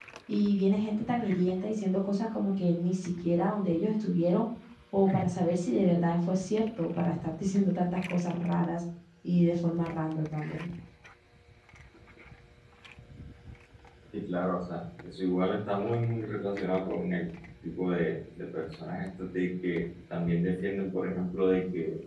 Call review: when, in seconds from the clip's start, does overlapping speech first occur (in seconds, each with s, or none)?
none